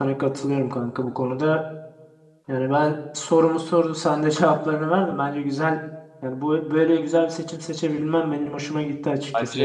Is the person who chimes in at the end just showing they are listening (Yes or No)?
No